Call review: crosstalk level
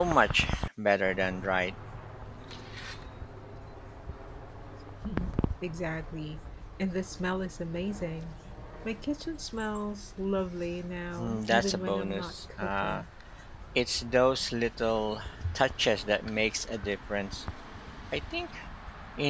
present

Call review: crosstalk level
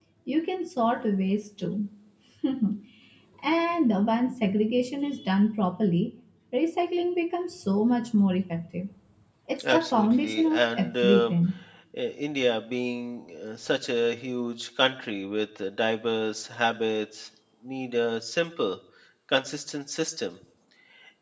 present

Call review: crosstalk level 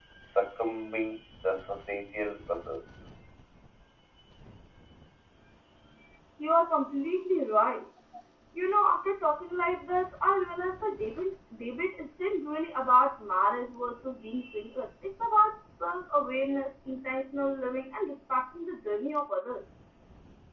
none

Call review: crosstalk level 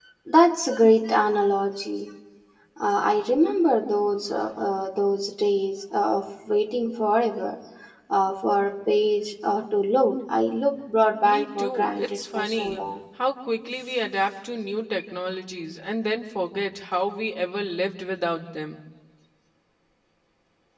present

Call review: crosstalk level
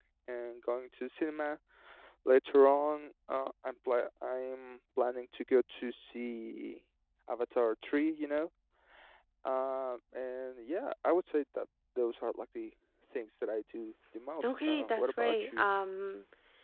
present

